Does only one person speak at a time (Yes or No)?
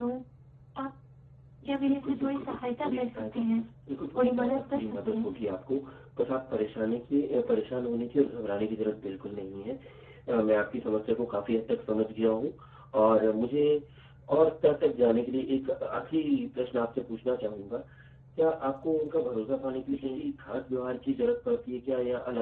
No